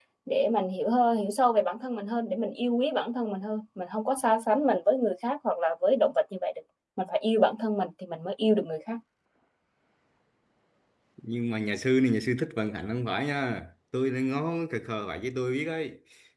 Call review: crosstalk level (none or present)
none